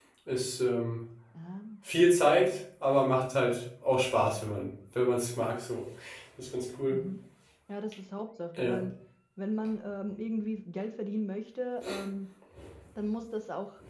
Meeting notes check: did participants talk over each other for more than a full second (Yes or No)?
No